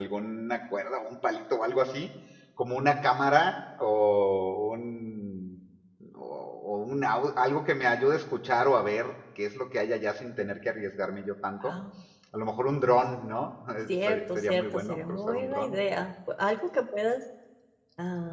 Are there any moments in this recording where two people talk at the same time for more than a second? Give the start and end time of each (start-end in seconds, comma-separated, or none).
14.1-15.8